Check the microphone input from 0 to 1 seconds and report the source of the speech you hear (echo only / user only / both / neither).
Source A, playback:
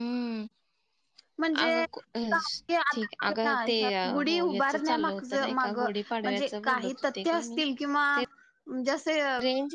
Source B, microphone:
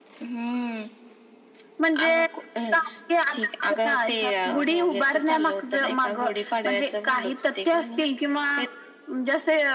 echo only